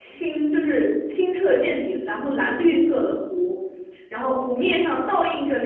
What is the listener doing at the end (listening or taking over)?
listening